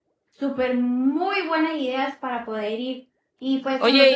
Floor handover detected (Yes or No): No